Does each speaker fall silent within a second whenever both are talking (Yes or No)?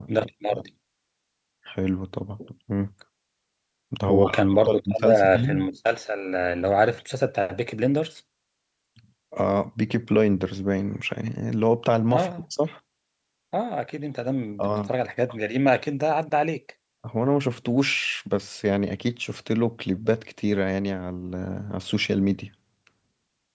No